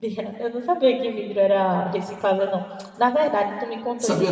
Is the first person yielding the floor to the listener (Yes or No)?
No